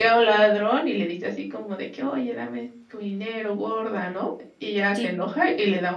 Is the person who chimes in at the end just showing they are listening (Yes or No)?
Yes